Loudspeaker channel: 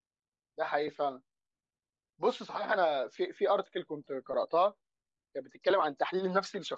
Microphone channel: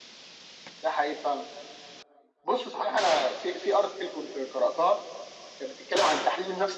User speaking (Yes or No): No